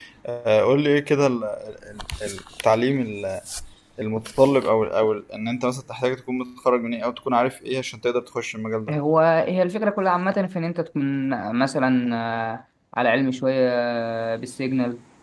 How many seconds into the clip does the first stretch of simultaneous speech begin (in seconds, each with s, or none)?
none